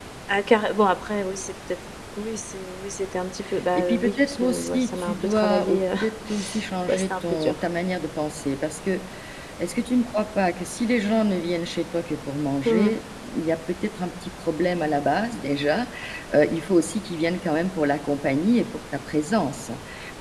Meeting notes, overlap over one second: present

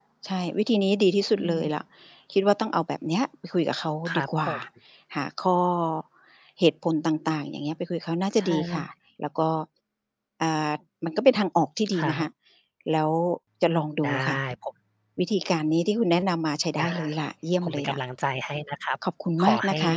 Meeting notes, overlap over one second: none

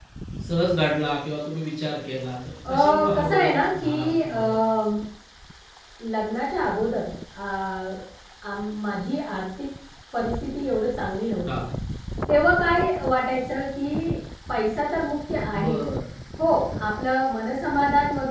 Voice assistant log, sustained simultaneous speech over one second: present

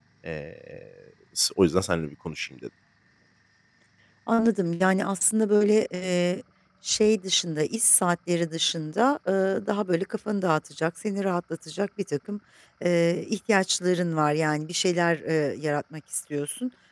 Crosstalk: none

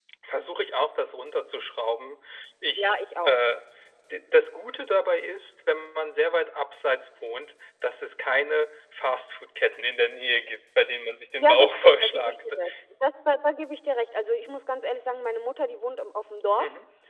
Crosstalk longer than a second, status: present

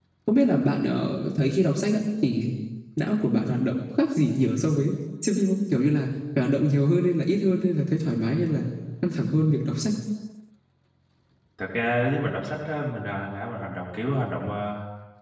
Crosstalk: none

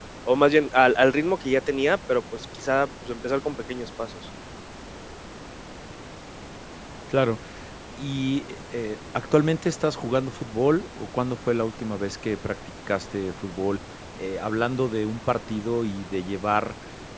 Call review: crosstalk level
none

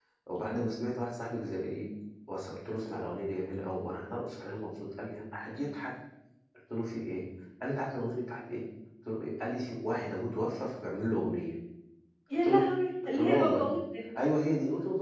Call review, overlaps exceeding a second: none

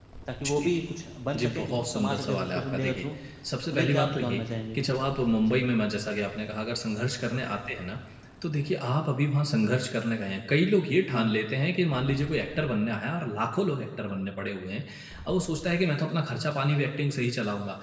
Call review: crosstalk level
present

